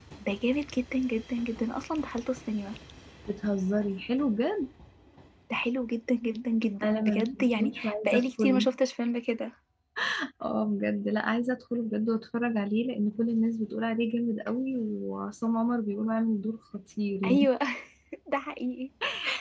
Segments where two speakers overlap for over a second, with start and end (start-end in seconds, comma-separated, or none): 6.8-8.6